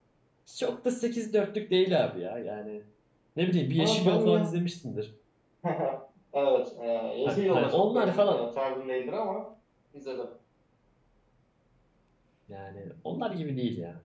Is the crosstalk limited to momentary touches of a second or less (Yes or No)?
No